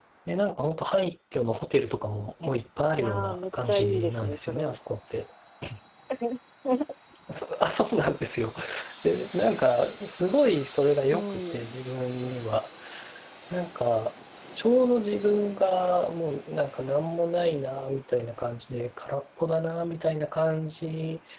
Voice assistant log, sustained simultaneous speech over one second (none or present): present